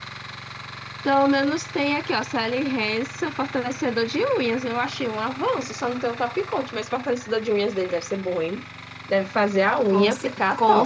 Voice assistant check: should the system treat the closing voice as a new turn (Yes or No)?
Yes